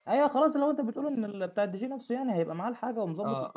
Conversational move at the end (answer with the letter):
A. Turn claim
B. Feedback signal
A